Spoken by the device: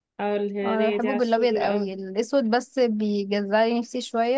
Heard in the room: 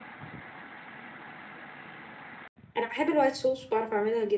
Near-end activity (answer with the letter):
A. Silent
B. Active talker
B